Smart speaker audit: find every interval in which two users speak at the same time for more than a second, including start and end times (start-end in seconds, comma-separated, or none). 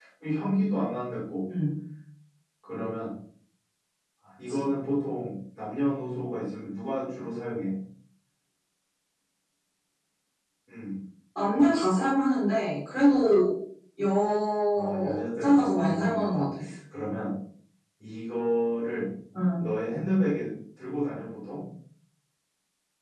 14.7-16.4